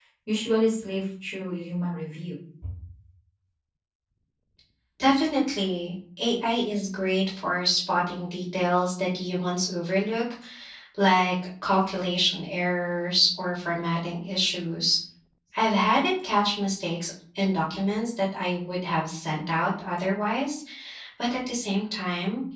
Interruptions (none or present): none